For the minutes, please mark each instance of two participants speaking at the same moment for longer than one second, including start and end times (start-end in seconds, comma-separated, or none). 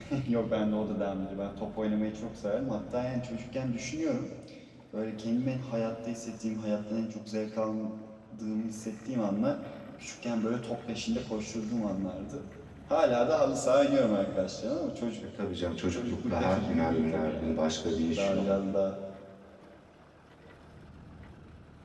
15.9-17.6